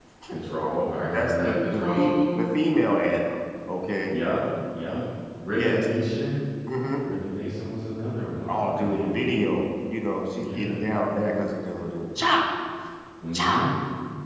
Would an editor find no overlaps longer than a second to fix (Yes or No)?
No